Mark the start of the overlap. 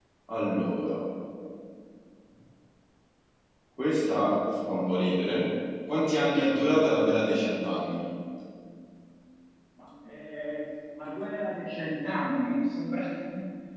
none

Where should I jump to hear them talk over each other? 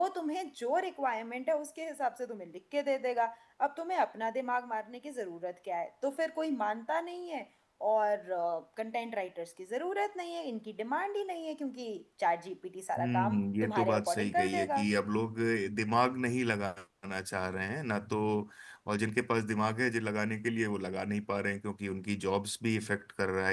13 s

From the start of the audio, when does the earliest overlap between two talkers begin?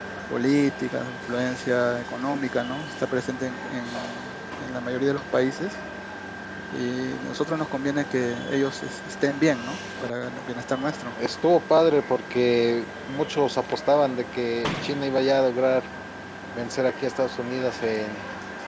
none

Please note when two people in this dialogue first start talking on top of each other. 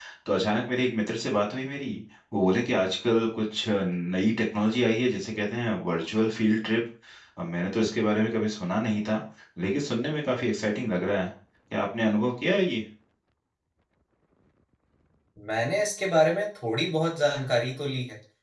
none

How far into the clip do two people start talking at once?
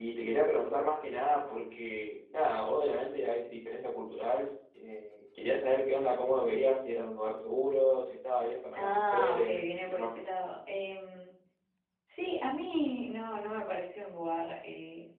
9 s

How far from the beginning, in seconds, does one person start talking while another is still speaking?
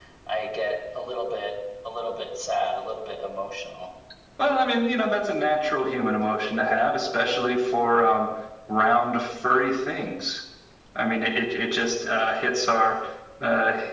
none

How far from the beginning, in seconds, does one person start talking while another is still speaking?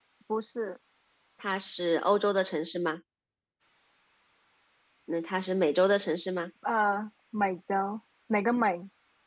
none

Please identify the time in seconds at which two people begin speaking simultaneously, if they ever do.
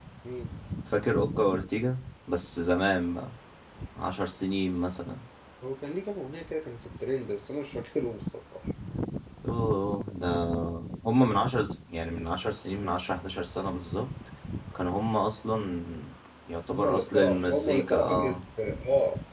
17 s

